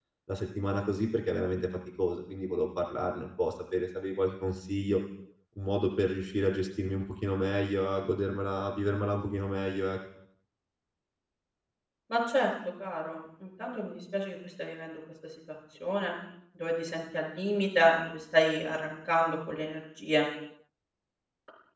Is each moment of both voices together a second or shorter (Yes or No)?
Yes